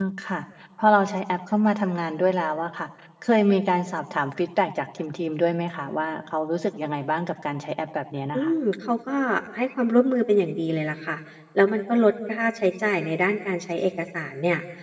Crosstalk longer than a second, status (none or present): none